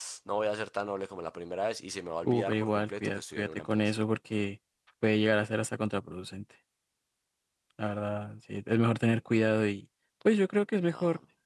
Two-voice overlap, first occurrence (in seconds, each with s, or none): 2.2 s